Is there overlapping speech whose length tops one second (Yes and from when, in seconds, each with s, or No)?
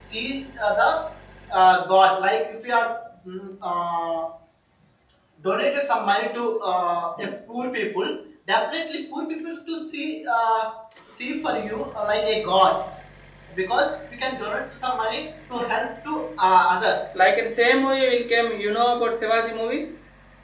No